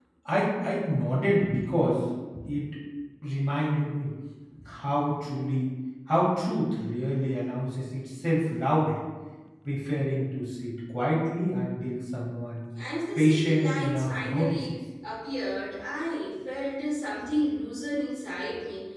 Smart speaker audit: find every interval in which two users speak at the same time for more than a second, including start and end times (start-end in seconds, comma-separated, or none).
13.2-14.8